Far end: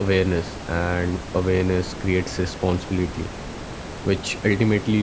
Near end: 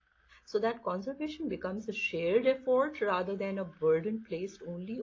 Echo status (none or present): none